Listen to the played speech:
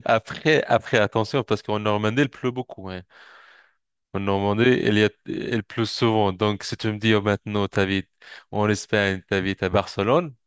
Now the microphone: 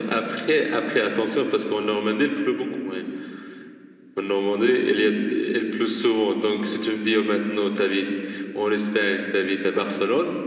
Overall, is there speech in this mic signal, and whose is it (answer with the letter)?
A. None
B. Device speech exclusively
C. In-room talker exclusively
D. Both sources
B